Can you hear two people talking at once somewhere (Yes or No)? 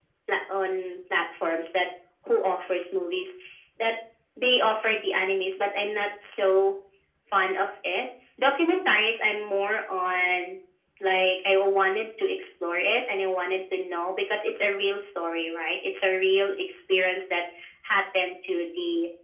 No